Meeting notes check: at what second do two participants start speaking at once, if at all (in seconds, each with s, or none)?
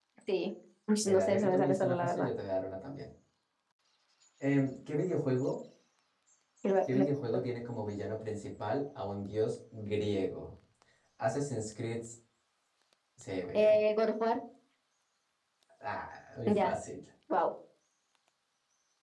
1.1 s